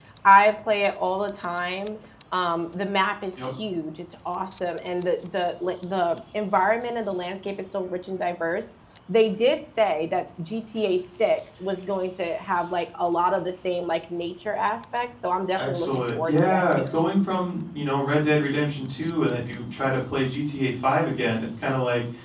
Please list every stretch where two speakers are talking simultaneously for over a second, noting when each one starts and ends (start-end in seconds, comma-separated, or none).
15.6-16.9